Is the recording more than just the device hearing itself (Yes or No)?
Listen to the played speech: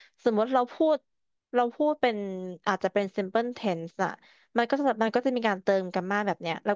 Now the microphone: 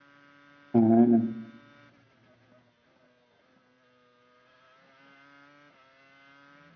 Yes